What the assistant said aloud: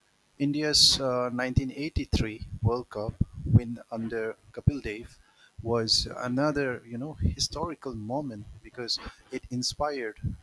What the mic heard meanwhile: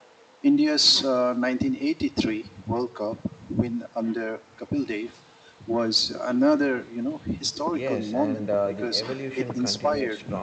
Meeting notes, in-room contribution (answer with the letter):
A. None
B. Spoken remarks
B